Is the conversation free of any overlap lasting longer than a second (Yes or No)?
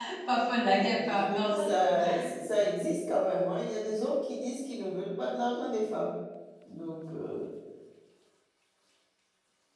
No